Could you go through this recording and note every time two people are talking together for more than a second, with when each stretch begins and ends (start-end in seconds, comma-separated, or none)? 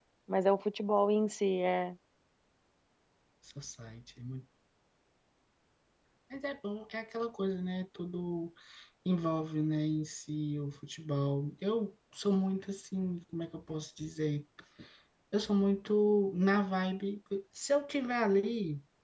none